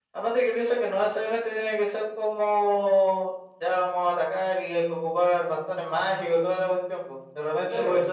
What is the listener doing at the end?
listening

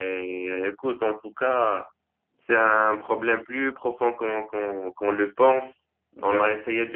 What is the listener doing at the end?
listening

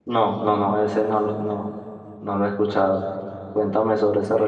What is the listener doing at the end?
taking over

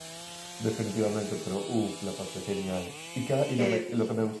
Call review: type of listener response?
listening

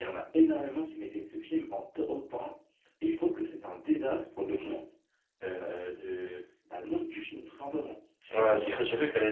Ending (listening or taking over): taking over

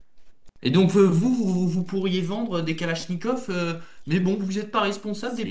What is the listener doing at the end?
taking over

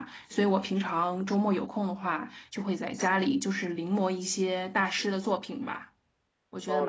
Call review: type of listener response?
taking over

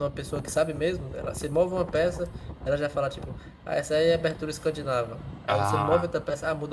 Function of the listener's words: listening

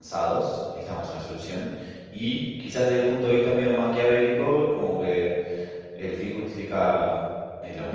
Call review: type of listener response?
listening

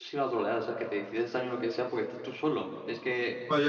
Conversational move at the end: taking over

